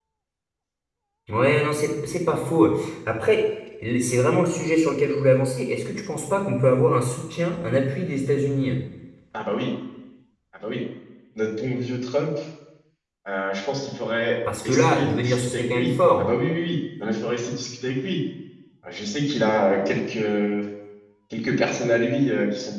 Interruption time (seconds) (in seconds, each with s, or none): 14.4 s